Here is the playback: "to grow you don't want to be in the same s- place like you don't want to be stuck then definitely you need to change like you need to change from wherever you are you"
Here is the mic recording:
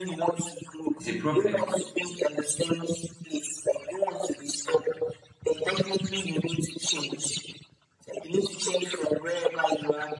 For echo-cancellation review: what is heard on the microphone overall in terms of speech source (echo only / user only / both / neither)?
both